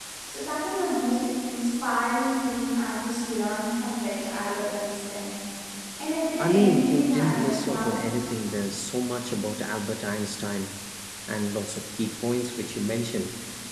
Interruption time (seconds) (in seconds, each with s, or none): 6.4 s